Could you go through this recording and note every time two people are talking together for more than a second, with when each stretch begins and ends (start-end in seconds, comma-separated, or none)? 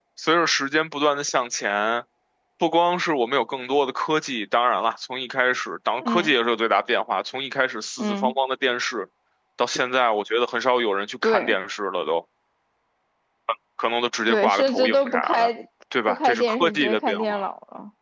14.3-15.5, 16.1-17.4